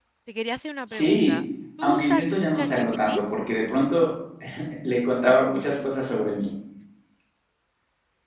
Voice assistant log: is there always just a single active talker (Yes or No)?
No